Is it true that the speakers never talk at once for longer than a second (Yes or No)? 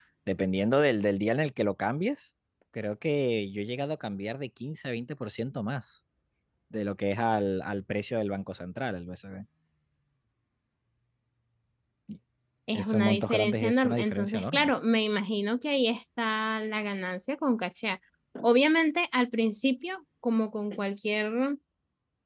No